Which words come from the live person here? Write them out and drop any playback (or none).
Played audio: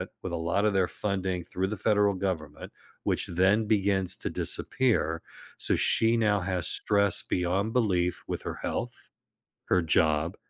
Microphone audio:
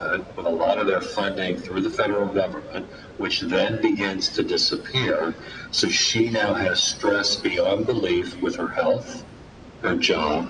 none